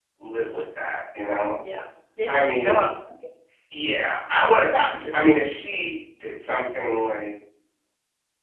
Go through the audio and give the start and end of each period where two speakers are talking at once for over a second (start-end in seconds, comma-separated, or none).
none